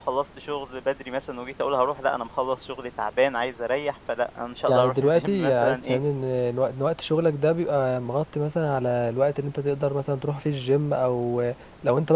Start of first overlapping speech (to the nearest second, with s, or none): 5 s